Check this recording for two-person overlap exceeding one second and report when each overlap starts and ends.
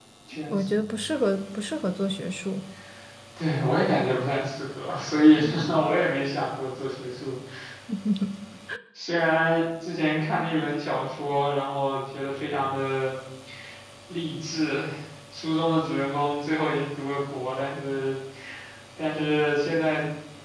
none

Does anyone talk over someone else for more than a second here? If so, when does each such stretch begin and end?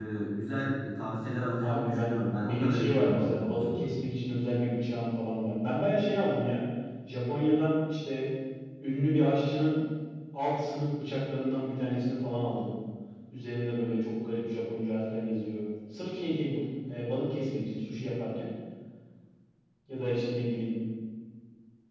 1.6-3.9

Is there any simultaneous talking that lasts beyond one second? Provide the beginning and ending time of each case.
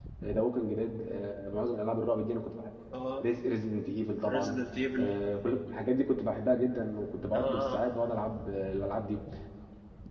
none

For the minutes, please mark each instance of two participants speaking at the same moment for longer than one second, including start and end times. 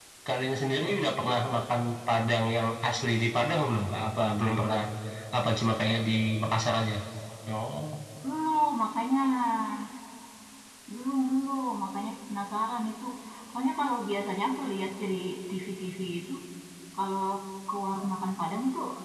none

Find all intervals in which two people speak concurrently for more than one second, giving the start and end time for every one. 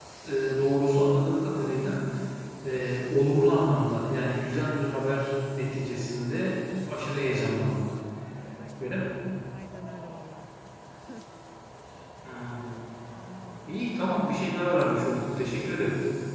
none

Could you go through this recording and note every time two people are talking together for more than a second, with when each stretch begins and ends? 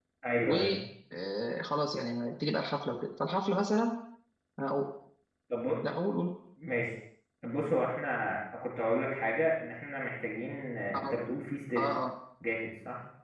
none

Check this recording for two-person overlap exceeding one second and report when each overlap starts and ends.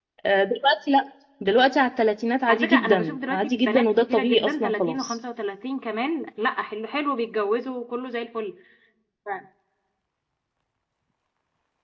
2.5-5.2

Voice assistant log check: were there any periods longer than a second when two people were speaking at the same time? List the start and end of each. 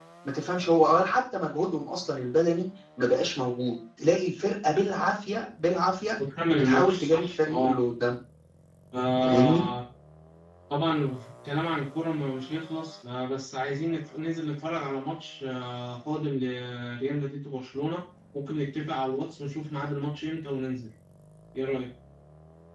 6.6-7.8

